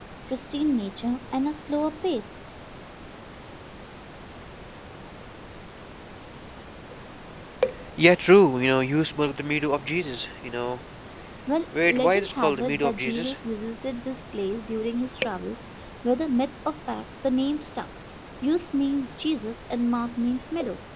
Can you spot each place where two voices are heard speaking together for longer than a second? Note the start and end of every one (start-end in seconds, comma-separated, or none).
11.8-13.4